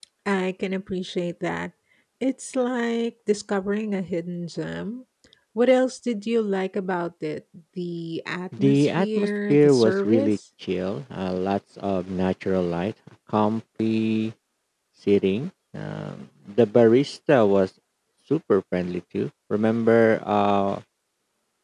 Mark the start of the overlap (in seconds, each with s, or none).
8.5 s